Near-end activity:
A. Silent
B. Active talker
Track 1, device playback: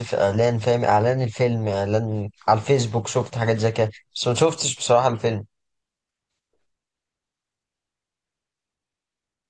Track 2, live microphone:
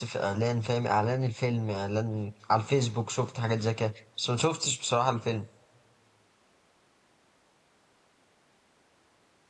A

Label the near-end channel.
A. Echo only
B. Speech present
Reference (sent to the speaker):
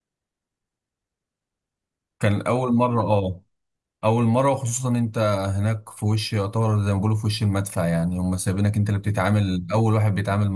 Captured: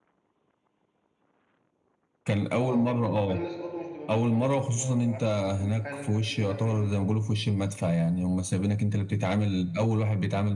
B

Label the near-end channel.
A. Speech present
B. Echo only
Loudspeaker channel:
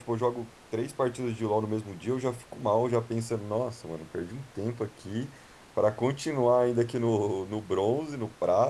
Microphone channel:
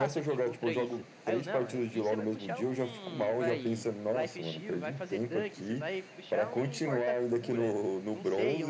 A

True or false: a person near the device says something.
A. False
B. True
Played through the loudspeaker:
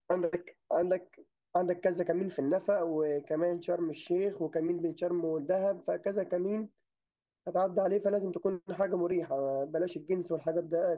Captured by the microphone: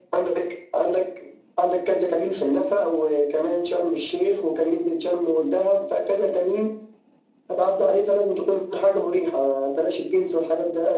A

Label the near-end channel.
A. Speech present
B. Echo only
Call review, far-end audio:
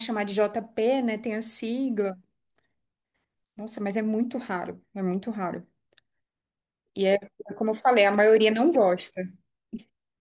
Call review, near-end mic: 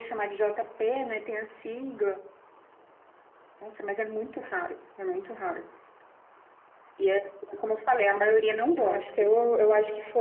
A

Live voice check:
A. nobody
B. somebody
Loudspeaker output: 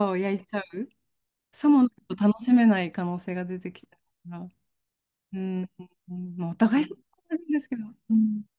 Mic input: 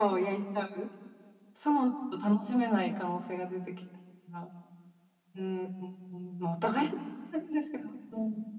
A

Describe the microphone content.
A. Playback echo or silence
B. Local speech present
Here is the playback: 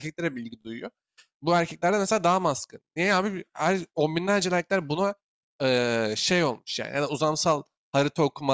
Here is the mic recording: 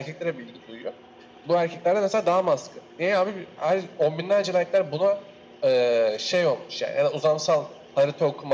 A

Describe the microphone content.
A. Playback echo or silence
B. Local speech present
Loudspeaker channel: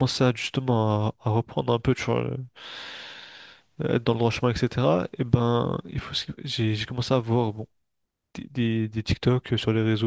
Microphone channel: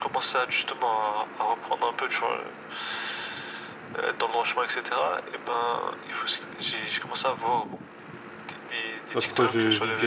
B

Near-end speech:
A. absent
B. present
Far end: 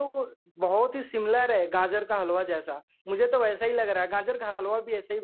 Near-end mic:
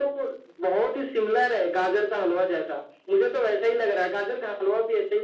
A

